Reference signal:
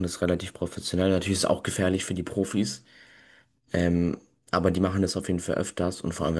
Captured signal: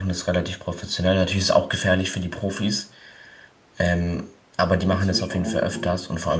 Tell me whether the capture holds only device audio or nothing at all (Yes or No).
No